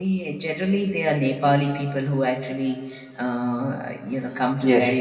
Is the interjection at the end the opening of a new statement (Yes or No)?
Yes